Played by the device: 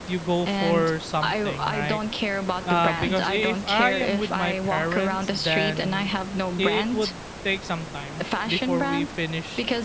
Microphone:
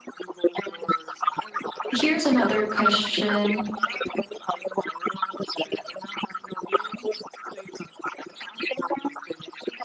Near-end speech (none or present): present